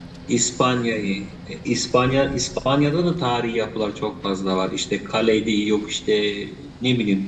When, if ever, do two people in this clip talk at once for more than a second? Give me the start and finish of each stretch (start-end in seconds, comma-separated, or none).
none